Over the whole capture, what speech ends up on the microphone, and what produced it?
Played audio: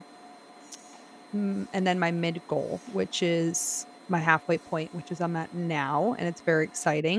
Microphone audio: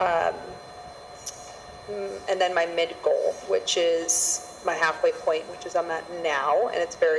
echo only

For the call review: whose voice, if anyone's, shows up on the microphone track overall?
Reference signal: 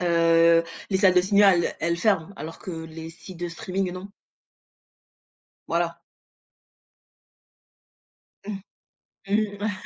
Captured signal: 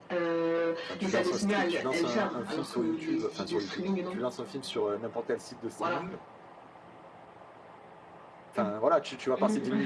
both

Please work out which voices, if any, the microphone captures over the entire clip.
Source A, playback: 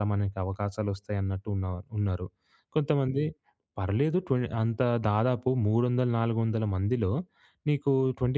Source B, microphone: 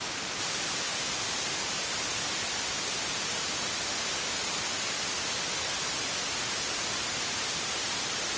neither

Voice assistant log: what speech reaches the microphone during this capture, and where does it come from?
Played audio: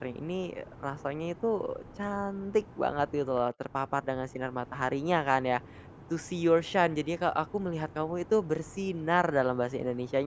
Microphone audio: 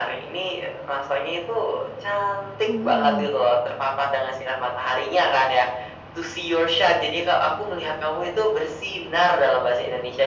both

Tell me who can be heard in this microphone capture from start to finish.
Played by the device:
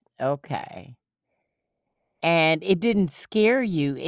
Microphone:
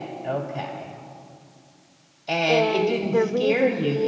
both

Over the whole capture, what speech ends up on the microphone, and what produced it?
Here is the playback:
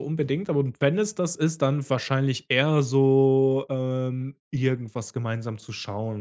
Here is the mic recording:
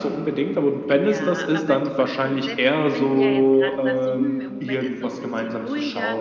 both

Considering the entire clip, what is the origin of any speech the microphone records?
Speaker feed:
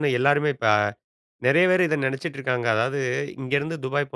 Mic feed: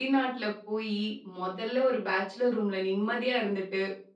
user only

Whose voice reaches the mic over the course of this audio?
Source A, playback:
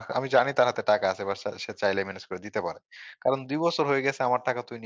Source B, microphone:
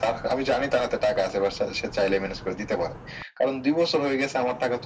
echo only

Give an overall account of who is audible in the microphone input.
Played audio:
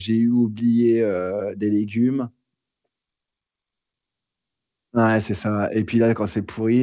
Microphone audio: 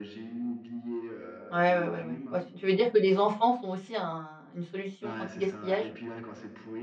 both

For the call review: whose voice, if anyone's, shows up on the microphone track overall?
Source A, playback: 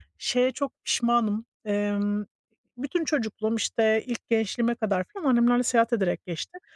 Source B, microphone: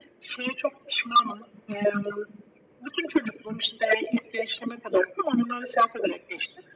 echo only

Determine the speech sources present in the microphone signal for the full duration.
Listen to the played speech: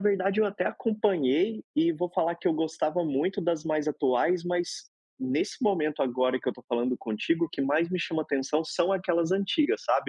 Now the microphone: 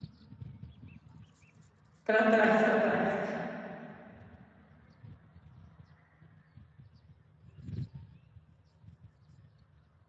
user only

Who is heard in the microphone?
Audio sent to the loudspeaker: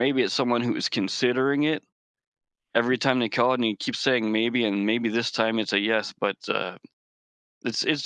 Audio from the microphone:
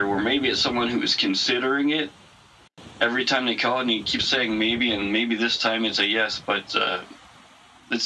echo only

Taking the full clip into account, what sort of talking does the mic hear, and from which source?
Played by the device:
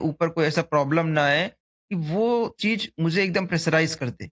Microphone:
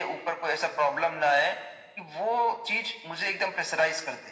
echo only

